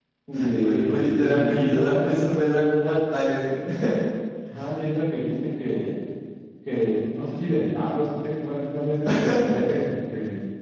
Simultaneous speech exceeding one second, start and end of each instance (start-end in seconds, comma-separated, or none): 0.6-1.9